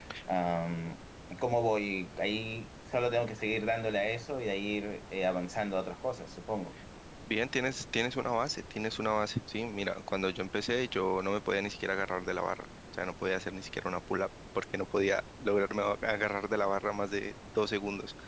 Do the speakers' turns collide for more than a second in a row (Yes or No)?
No